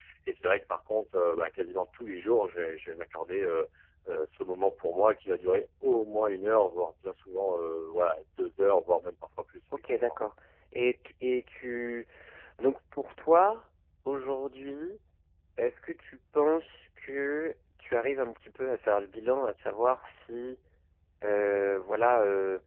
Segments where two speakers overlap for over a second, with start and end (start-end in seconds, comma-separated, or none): none